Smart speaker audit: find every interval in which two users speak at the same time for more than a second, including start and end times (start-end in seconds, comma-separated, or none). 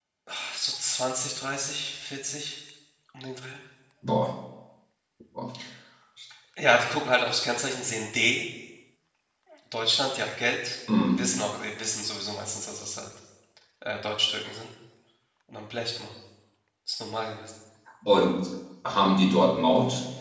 none